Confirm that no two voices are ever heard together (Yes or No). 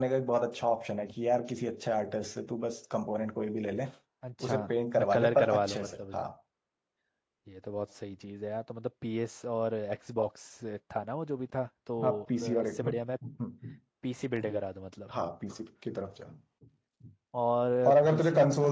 No